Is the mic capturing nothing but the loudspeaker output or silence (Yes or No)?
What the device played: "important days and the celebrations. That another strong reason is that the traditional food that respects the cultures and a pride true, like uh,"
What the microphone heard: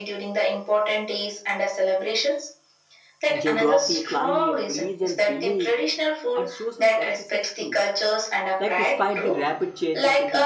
No